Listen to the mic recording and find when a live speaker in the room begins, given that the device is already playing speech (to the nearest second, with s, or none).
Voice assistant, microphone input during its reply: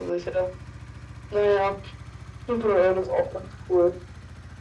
none